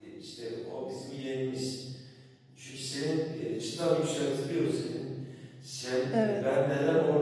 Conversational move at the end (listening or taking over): listening